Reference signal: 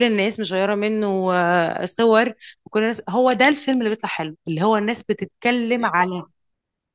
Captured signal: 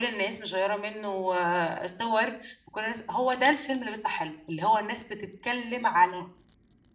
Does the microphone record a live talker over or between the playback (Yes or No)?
No